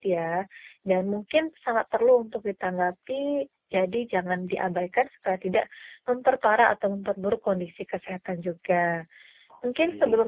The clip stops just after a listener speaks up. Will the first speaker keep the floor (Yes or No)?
Yes